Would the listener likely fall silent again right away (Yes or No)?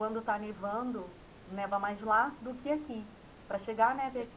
Yes